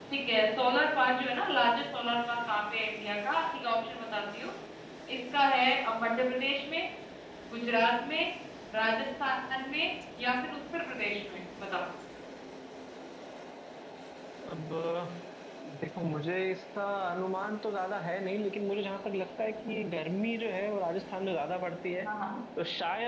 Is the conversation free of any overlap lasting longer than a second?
Yes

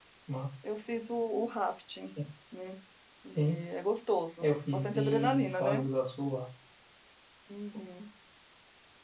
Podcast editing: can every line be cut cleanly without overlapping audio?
No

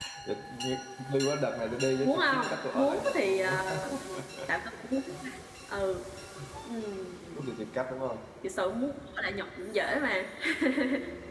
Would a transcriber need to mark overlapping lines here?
Yes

